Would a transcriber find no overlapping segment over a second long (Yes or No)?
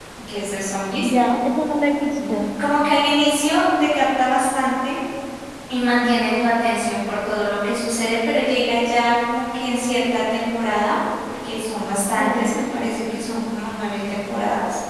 Yes